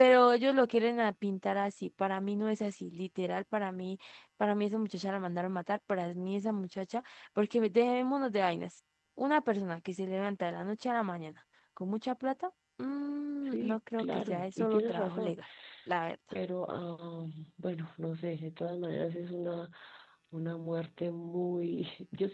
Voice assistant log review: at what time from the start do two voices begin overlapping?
13.4 s

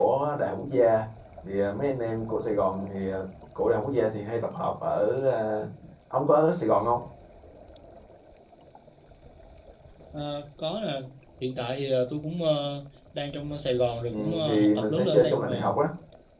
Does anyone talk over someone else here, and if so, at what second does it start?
14.1 s

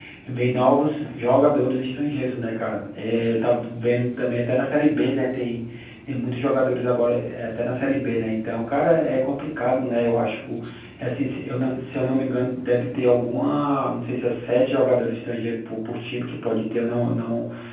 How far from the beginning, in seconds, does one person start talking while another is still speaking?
none

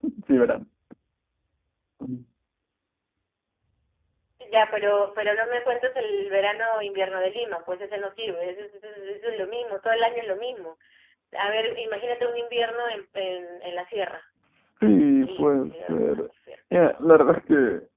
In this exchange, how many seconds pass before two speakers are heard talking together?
14.8 s

